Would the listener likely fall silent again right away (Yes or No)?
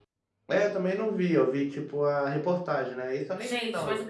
No